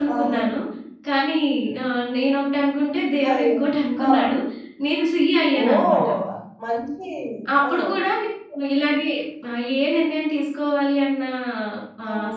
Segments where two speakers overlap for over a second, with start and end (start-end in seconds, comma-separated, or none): none